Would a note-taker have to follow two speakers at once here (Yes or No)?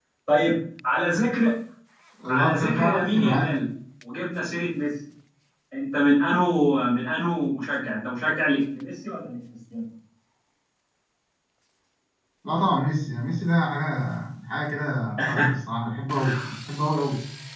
Yes